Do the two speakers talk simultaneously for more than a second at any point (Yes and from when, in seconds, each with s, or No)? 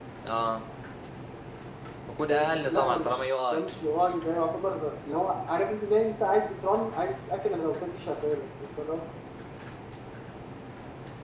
Yes, from 2.2 s